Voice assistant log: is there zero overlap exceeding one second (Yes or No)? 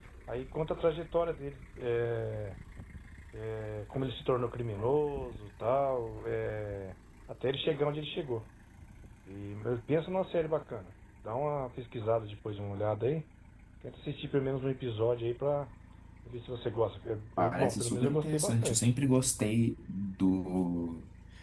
No